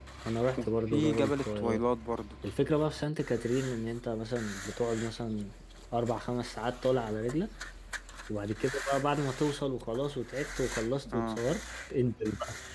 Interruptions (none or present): present